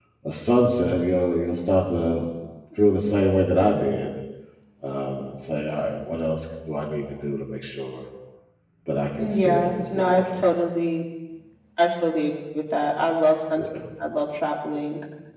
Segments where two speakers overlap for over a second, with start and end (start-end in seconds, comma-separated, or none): 9.2-10.4